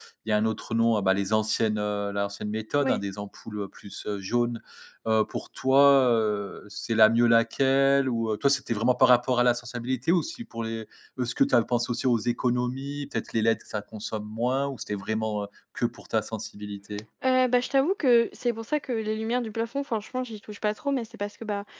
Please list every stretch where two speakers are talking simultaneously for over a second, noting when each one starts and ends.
none

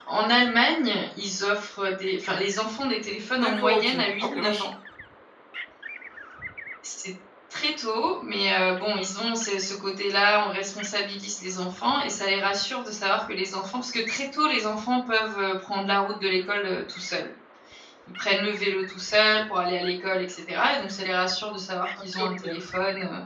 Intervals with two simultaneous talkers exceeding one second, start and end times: 3.4-4.7

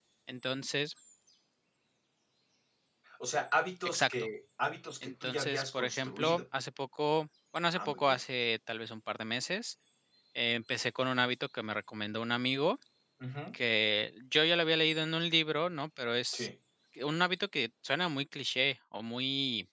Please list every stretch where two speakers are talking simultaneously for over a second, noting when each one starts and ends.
5.0-6.4

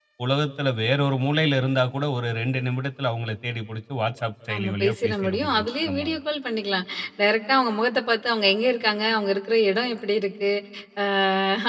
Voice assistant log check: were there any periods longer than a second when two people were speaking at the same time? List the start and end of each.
4.5-6.1

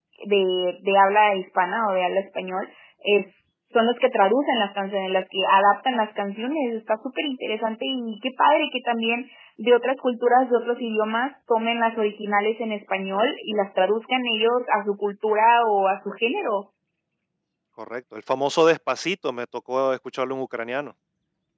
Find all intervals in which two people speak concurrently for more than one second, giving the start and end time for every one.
none

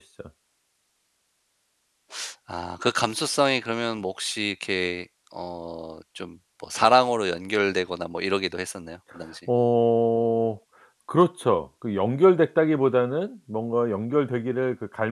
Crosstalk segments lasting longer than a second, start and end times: none

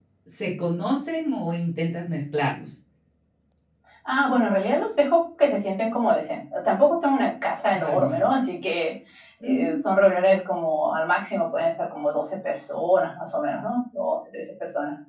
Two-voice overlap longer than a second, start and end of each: none

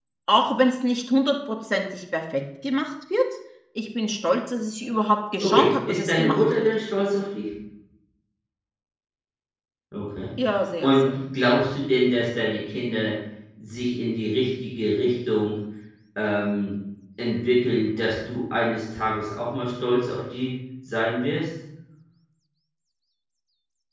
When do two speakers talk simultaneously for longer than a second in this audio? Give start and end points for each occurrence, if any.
5.4-6.7

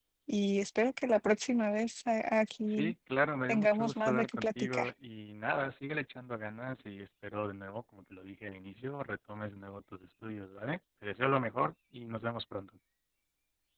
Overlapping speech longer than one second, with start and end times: 3.5-4.9

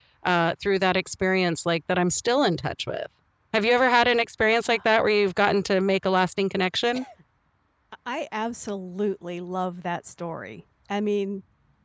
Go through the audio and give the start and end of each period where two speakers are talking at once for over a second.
none

